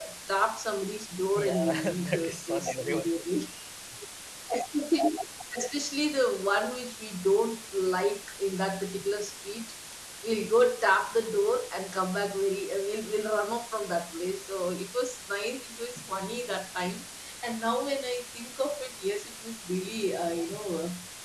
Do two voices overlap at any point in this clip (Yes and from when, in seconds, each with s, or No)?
Yes, from 1.4 s